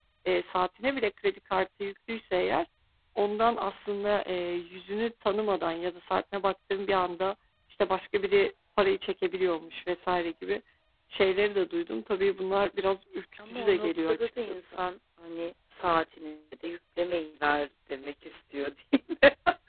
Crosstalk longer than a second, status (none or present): present